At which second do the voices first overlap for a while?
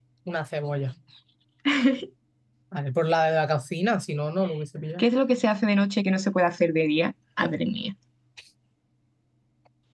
none

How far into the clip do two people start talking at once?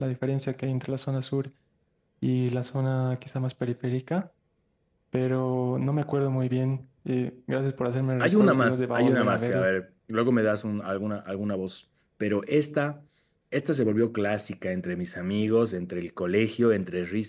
8.2 s

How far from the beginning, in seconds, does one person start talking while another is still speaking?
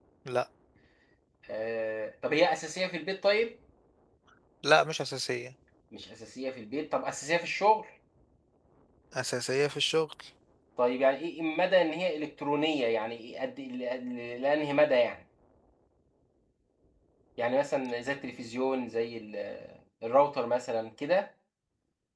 none

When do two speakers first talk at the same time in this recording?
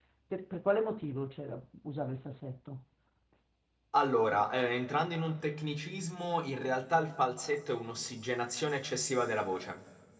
none

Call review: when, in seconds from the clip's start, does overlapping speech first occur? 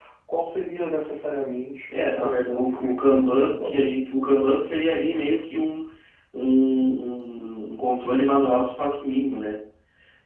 1.9 s

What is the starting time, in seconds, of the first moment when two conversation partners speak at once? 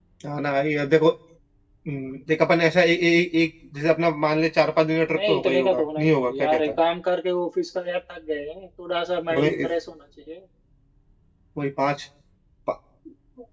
5.1 s

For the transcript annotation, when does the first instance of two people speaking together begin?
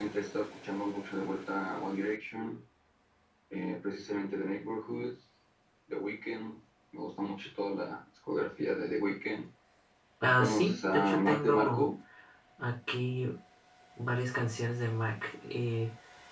10.4 s

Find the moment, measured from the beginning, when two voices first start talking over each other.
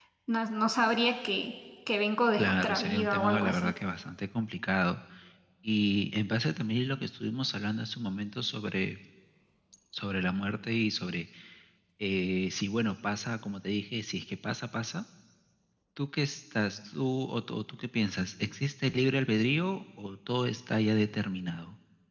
2.4 s

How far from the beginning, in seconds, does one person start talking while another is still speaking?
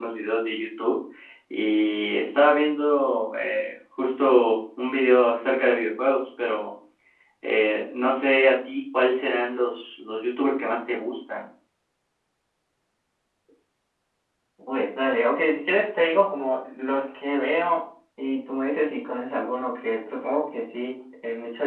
none

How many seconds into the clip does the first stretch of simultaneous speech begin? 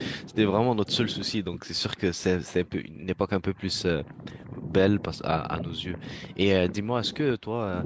none

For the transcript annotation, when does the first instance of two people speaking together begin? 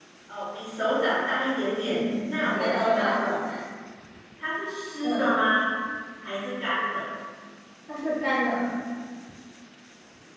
1.8 s

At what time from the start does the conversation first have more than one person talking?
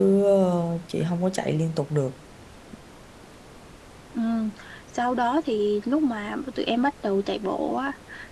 none

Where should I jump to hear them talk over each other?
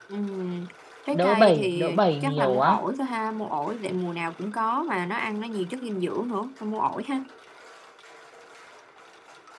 1.1 s

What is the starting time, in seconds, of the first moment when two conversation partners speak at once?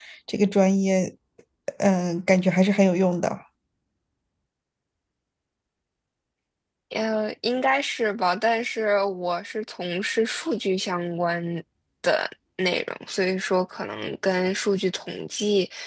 none

